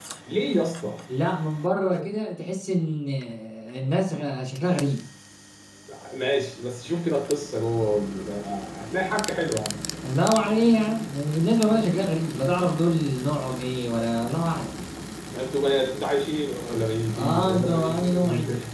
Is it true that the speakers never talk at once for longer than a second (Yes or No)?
No